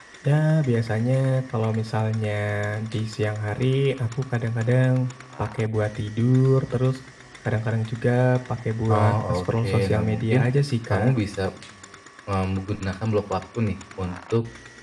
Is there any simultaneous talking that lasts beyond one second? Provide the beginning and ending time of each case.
8.9-10.4

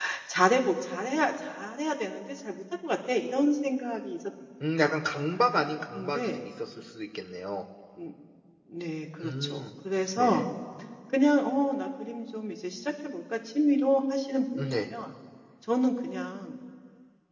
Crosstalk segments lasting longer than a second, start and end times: none

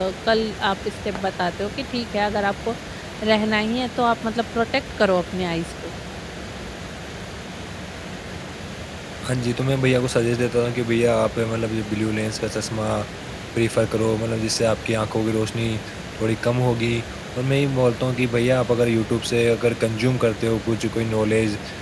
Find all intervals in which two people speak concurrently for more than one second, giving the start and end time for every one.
none

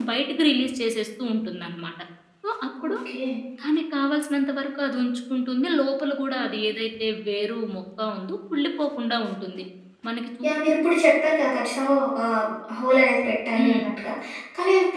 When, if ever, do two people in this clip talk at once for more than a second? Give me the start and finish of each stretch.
none

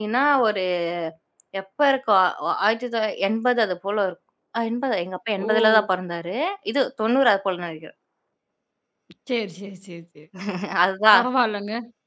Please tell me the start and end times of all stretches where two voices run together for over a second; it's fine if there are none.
none

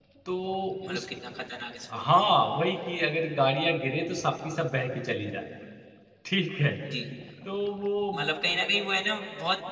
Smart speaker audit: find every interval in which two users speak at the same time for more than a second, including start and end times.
none

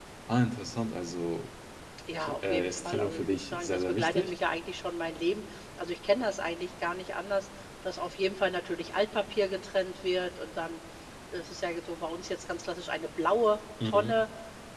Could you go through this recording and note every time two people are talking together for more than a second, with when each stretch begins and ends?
2.2-4.3

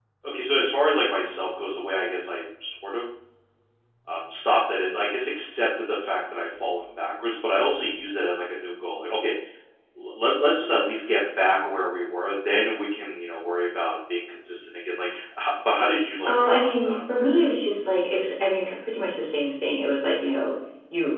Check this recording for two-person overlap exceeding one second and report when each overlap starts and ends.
16.2-17.5

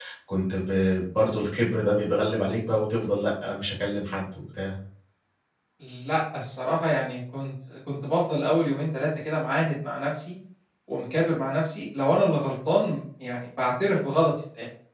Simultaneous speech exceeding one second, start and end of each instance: none

